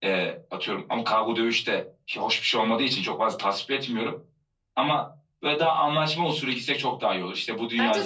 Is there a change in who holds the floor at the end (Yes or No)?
Yes